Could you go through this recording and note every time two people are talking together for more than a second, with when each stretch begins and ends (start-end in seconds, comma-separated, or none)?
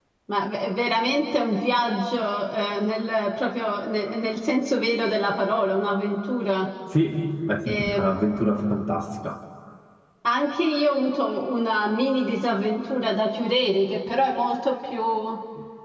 none